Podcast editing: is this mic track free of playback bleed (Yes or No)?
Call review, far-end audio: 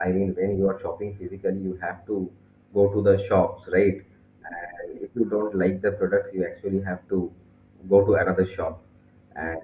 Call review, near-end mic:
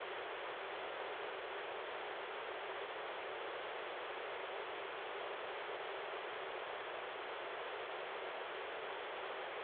Yes